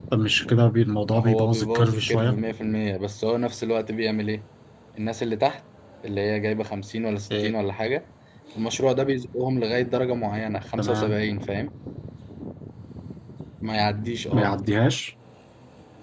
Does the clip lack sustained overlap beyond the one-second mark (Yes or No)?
No